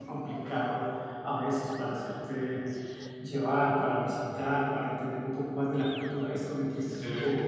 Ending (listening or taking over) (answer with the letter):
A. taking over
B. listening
B